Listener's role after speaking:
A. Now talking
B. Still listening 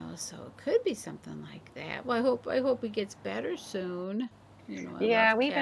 A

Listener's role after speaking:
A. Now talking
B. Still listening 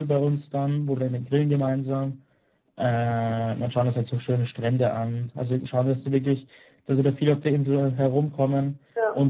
B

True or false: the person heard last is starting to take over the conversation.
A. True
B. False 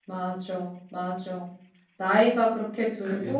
B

